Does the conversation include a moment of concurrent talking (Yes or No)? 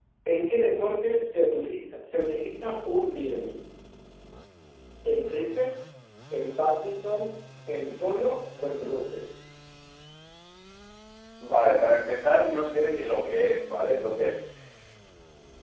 No